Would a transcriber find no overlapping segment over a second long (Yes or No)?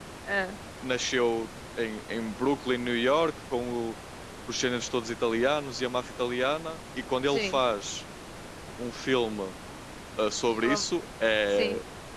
Yes